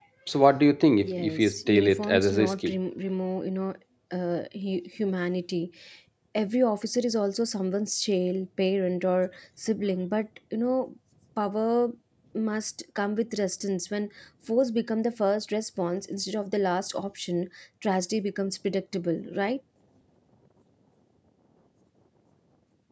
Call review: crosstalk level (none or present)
present